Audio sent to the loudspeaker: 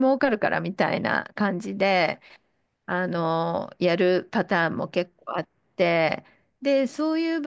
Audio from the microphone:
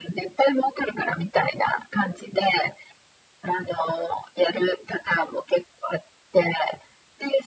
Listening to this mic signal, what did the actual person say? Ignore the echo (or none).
none